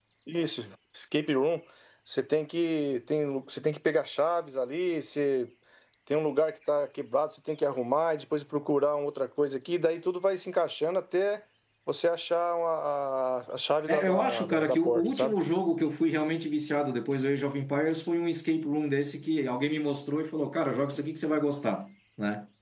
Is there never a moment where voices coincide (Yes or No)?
No